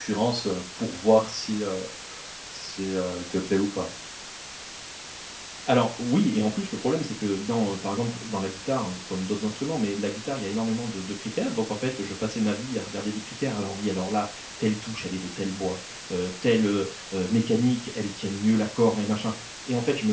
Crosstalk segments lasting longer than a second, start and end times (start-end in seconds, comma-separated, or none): none